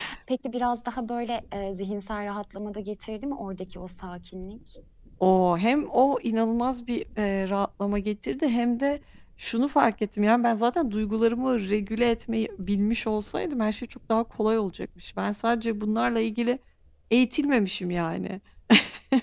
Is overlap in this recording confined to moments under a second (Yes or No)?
Yes